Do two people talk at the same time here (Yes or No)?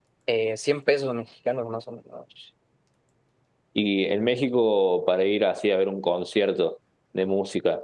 No